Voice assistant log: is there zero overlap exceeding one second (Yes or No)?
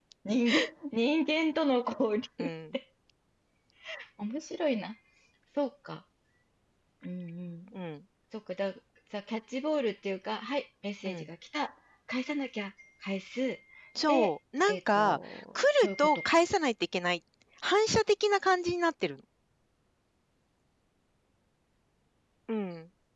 No